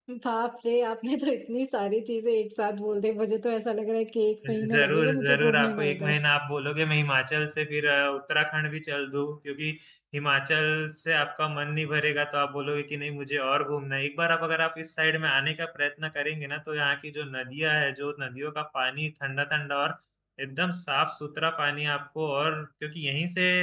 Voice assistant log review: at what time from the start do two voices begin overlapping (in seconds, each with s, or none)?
4.7 s